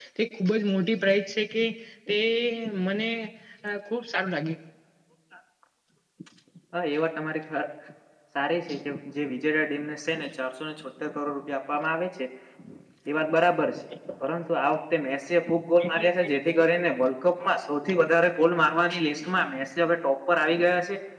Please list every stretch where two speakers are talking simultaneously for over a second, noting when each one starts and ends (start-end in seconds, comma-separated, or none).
none